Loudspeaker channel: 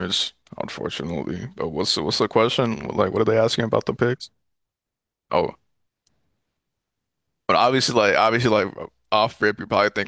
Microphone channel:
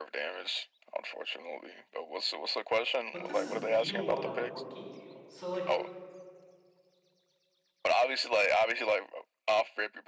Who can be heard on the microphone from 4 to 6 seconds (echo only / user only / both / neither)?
both